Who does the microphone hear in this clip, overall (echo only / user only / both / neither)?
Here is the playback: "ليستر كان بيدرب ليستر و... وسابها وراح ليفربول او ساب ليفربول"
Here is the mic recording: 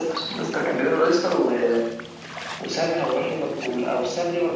echo only